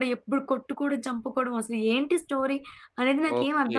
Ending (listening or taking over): taking over